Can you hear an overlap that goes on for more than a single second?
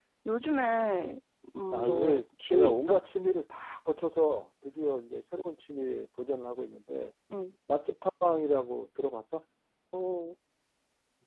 Yes, from 1.7 s

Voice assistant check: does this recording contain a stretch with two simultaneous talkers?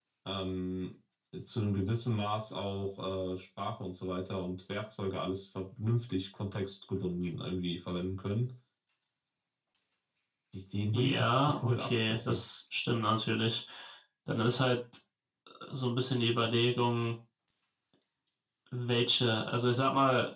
Yes, from 10.9 s

